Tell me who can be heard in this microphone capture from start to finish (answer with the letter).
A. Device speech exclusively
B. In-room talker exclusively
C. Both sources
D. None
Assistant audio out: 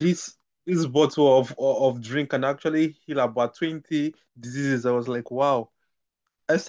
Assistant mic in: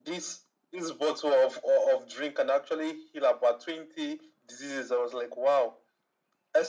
A